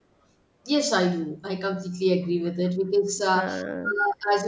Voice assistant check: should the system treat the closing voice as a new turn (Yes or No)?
No